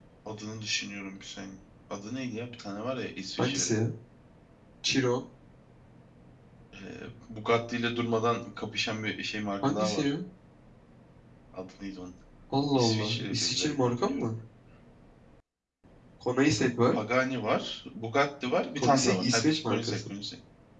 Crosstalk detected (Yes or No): Yes